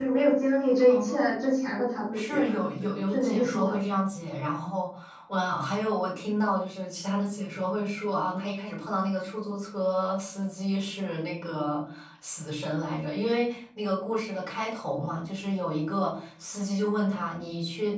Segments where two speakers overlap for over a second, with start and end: 2.1-3.8

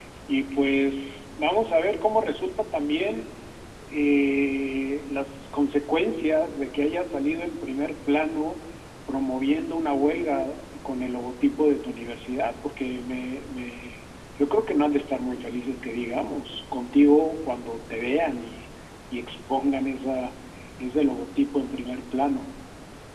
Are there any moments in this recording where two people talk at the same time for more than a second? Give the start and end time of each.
none

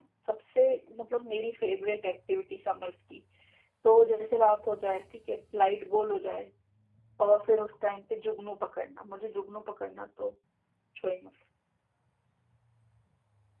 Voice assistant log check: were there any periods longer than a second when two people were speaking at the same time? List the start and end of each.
none

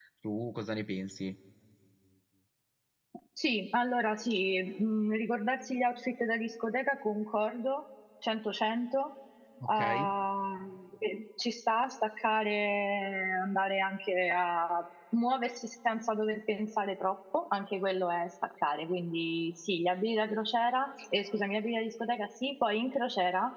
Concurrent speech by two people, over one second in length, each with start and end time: none

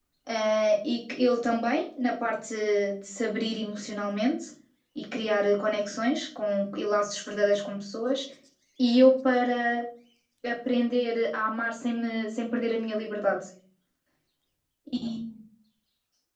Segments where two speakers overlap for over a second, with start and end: none

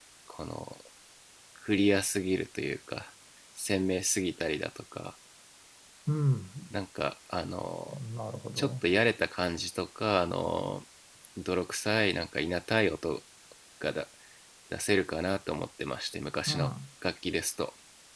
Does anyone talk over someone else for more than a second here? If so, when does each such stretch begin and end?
none

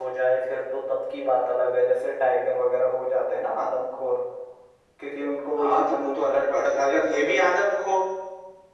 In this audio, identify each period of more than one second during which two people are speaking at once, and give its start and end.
5.6-7.4

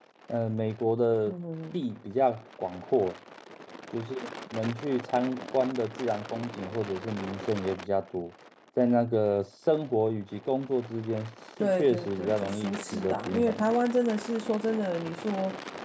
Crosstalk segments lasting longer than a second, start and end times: 11.6-13.7

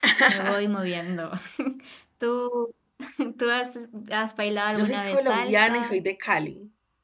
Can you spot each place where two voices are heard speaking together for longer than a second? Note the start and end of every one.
4.8-6.0

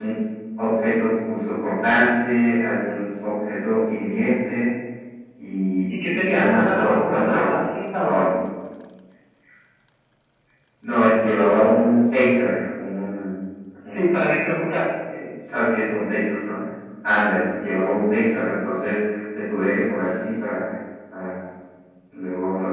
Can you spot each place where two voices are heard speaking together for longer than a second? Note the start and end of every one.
6.1-7.6

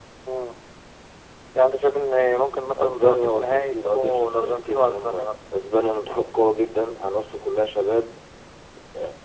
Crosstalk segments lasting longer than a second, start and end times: 2.8-5.2

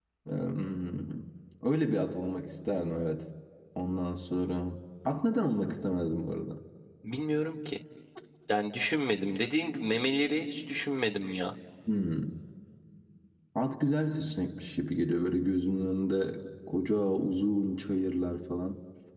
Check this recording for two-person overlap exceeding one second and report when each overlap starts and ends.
none

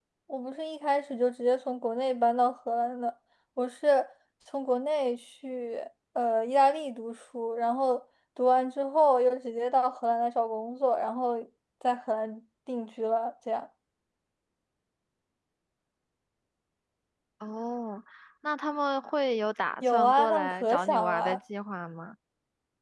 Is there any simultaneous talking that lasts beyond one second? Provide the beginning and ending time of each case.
19.8-21.4

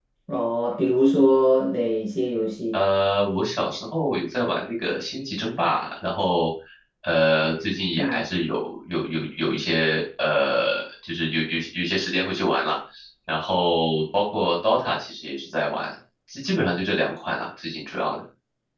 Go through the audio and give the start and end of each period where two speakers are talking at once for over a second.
none

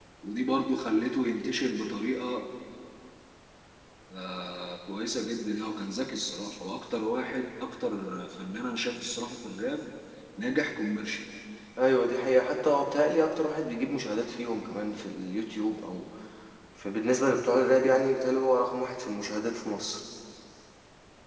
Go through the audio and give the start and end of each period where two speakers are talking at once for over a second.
none

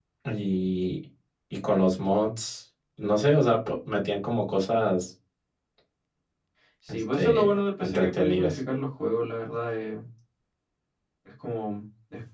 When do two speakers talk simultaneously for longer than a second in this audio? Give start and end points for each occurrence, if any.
6.9-8.6

